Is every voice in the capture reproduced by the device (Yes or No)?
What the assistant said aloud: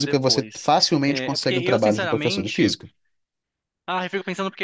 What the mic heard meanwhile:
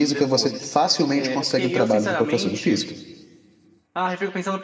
Yes